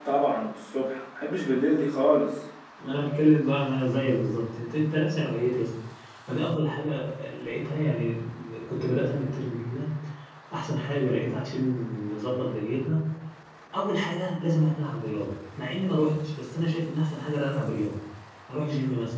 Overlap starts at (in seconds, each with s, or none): none